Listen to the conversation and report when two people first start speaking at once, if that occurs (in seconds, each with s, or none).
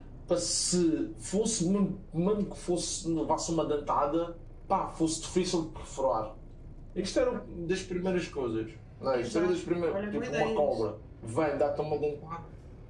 9.1 s